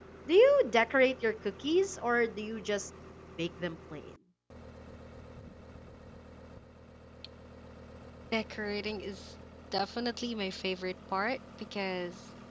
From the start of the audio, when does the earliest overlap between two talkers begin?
none

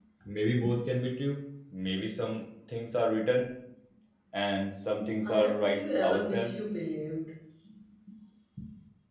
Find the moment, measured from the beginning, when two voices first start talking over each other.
5.2 s

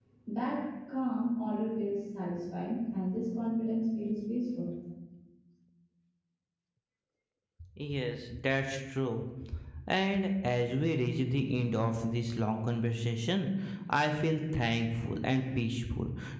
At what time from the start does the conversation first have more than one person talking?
none

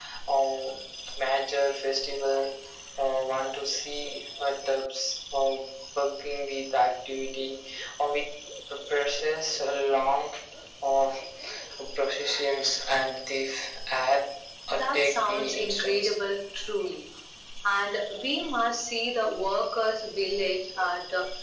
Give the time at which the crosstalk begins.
14.7 s

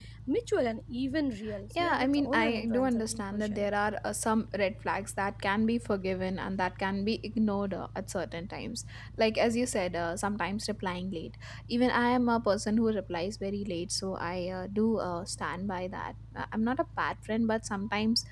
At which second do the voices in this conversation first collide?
1.7 s

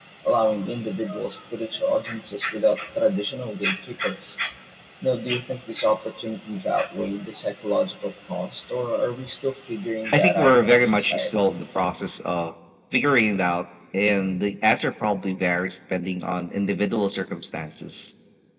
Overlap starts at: 10.1 s

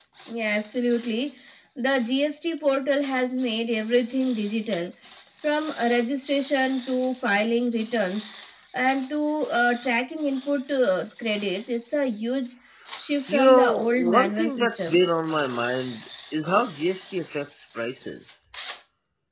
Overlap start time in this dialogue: 13.3 s

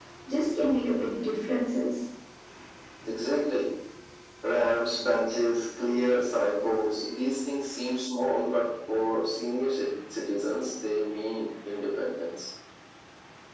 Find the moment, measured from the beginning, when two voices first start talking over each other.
none

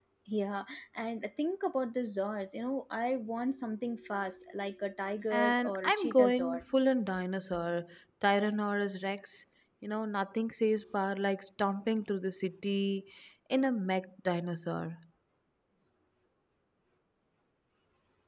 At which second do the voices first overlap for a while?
5.3 s

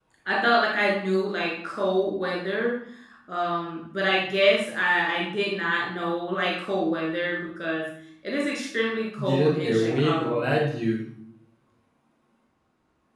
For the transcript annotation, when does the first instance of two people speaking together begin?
9.2 s

